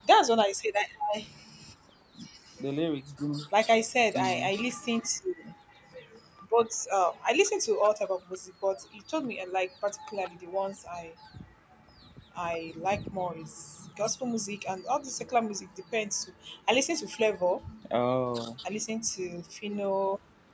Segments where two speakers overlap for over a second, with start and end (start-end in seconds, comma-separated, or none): none